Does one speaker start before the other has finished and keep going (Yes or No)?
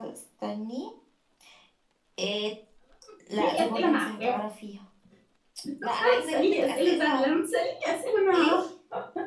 Yes